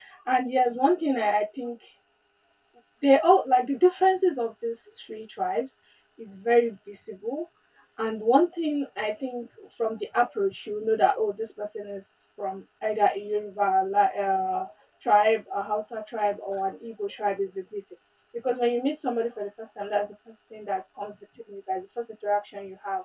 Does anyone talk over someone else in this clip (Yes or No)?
No